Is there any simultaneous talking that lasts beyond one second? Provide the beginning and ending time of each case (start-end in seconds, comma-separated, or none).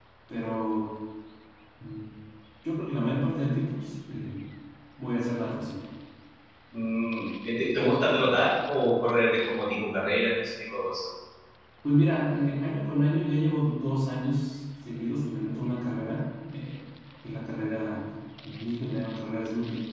none